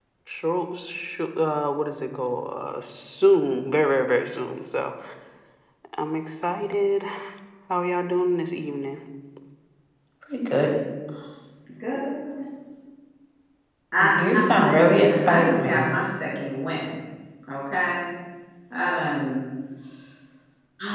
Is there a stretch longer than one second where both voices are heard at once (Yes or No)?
Yes